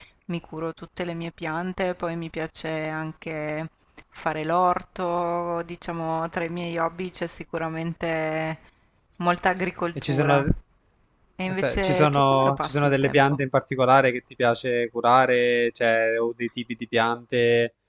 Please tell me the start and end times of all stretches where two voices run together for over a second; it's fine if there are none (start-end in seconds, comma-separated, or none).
11.5-13.4